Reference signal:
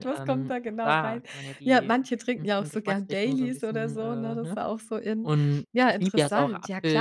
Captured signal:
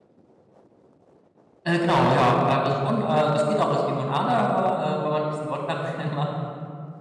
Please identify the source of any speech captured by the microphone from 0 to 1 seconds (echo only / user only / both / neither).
neither